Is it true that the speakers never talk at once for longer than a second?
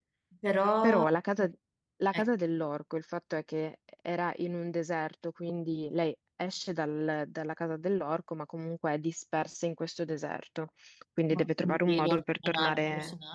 No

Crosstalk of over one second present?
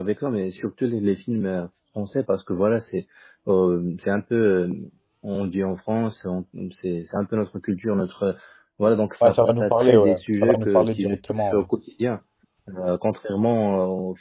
Yes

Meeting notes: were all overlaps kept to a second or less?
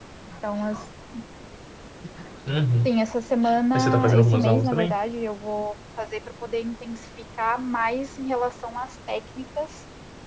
No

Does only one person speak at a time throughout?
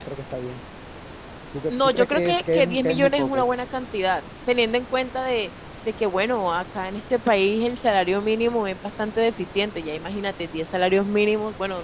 No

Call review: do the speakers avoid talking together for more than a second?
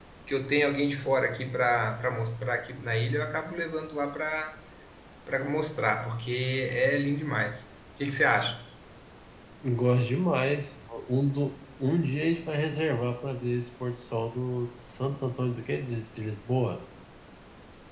Yes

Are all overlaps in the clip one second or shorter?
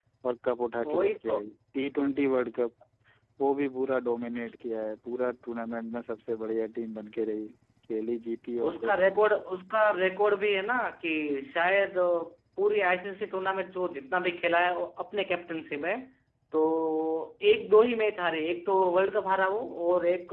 Yes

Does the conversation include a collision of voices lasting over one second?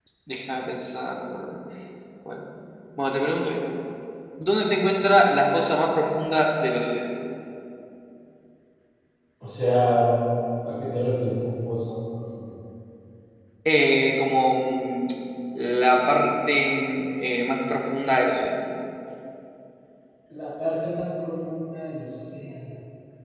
No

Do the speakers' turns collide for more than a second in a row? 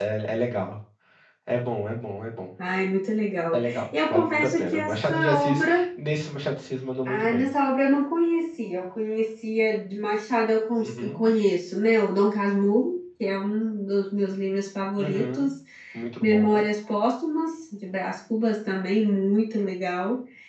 Yes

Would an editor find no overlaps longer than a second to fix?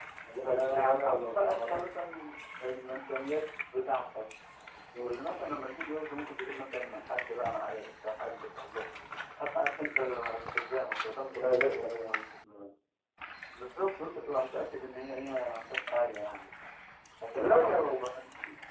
No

